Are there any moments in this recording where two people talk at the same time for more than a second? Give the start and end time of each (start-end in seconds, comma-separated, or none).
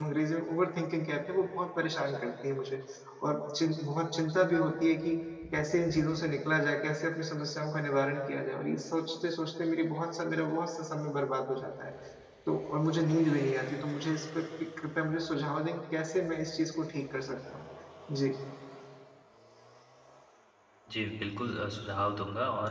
none